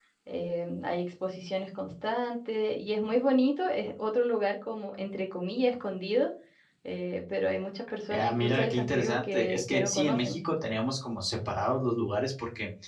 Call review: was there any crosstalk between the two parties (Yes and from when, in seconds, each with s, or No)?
Yes, from 8.1 s